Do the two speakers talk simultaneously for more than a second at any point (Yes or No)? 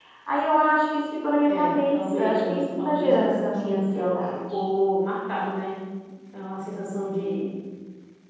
Yes